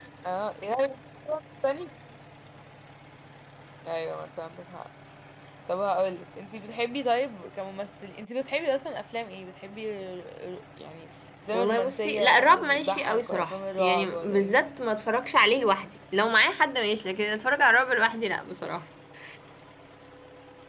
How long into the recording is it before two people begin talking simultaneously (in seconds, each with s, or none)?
11.5 s